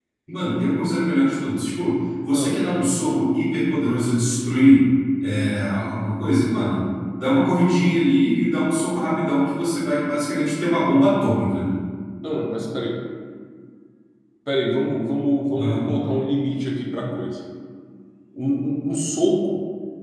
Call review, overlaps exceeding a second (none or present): none